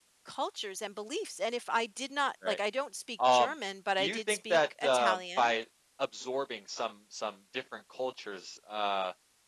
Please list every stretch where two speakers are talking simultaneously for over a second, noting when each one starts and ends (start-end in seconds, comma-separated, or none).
4.0-5.5